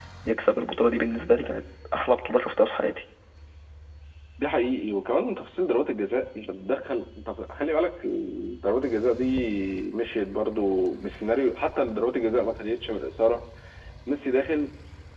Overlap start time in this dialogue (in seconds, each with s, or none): none